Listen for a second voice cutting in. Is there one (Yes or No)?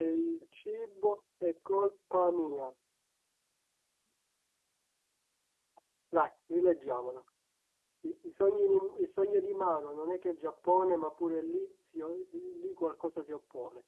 No